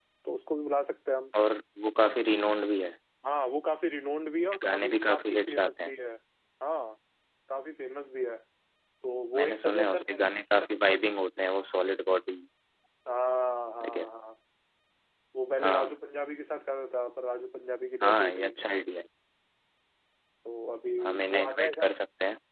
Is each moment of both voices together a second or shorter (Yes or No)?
No